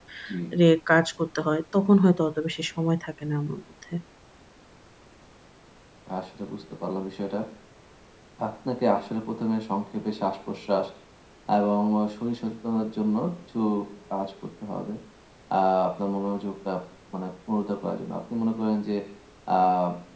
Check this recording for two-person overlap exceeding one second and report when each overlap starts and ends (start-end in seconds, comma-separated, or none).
none